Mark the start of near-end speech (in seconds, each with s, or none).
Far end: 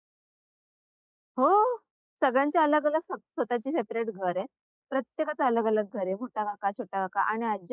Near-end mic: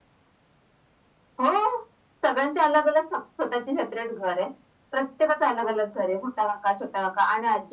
none